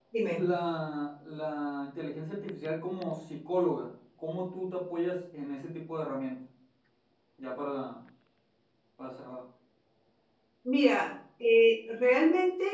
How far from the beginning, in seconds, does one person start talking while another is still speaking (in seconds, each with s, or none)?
none